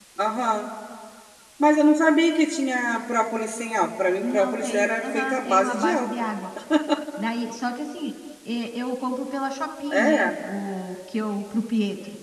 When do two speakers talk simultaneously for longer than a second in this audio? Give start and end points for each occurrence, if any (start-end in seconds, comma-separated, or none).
4.2-6.1